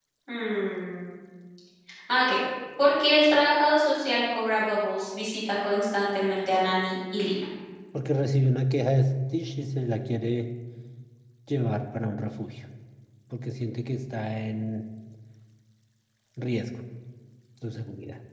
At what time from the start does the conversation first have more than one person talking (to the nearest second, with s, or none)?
none